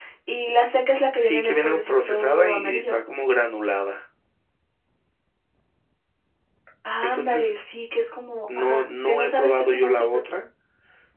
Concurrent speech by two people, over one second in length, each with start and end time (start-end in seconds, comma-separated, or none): 1.2-3.0, 8.6-10.2